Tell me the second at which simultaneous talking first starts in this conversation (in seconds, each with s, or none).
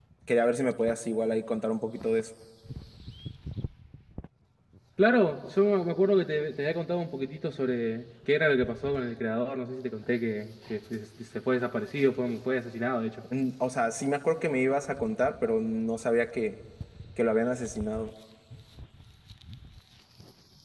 none